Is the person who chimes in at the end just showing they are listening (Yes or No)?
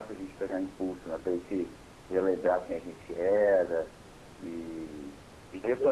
Yes